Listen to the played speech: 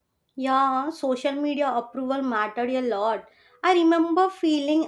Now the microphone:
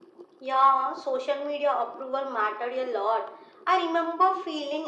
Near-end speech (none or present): none